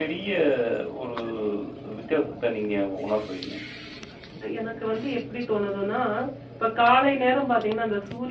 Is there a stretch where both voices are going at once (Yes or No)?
No